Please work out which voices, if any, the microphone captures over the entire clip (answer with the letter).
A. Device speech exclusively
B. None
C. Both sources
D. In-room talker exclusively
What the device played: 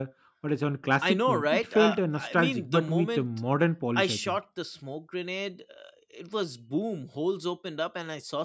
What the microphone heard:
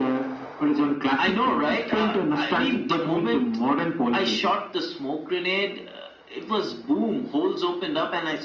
A